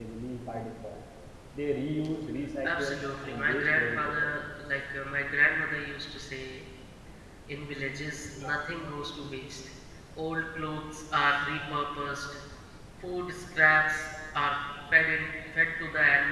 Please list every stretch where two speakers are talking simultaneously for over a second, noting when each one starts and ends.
2.6-4.3

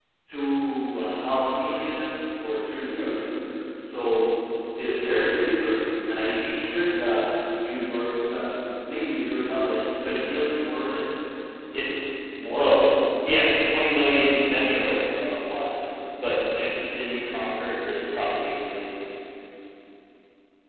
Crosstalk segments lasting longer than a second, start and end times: none

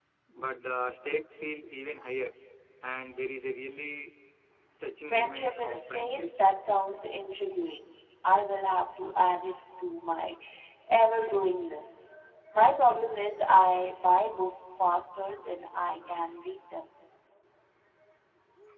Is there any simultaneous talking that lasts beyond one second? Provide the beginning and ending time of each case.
5.0-6.3

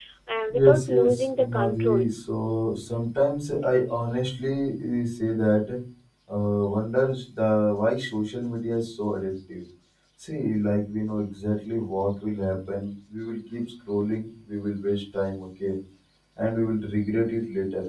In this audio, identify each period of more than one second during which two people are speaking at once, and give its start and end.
0.5-2.0

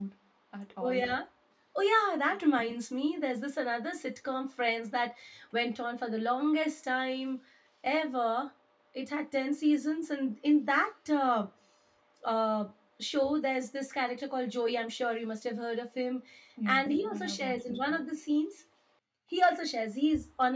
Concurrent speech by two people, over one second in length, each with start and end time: 16.7-18.0

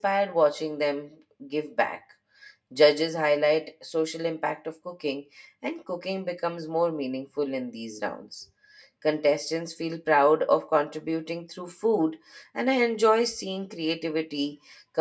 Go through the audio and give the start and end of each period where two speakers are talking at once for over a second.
none

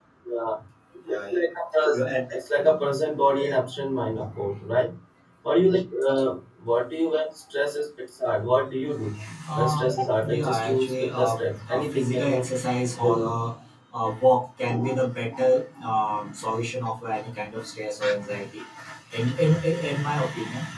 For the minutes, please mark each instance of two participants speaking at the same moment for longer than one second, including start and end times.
10.3-12.4

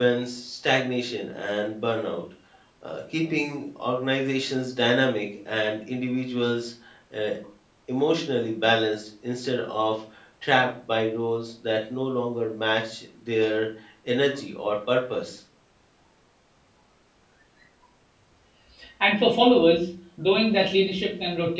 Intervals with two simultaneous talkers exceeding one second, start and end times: none

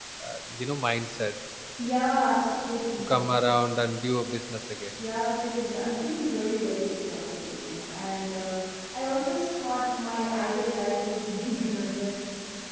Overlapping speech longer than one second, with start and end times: none

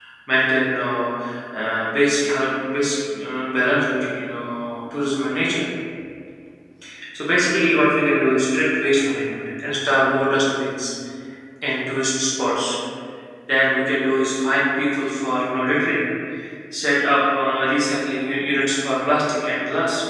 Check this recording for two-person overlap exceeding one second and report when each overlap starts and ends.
none

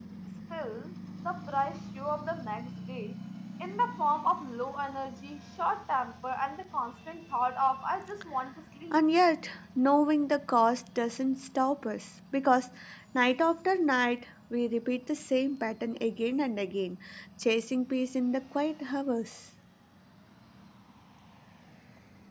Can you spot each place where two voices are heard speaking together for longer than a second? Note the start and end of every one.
none

